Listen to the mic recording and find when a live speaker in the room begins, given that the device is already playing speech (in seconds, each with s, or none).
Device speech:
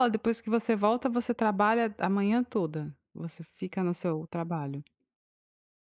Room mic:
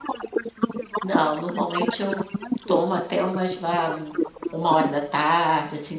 1.0 s